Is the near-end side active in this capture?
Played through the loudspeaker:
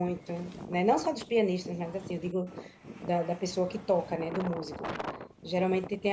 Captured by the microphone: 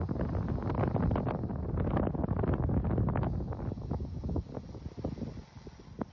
No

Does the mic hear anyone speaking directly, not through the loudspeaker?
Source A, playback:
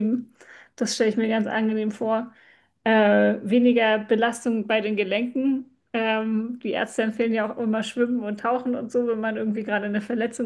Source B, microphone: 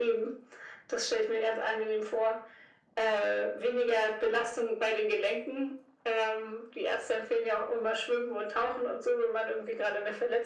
No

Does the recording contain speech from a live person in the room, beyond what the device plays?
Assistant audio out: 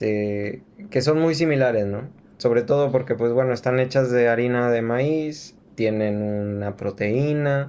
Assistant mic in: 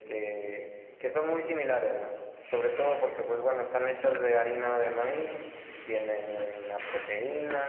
No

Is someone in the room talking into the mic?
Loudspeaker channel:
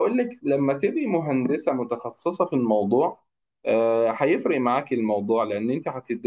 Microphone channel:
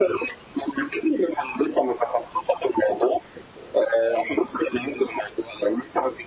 No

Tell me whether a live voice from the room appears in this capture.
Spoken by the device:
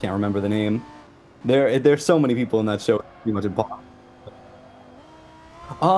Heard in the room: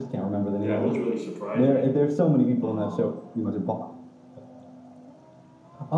Yes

